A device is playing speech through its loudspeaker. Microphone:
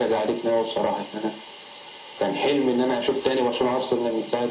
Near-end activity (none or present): none